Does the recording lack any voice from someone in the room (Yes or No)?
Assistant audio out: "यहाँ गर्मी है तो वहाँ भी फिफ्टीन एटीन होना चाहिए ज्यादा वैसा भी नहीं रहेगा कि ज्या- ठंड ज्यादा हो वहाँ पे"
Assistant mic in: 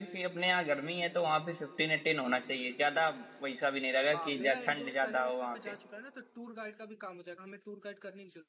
No